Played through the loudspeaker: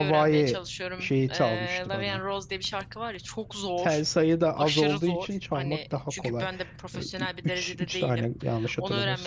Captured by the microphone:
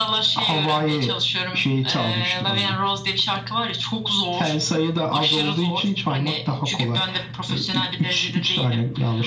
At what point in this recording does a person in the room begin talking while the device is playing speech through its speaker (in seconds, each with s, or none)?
none